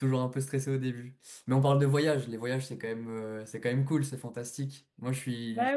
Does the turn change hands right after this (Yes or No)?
No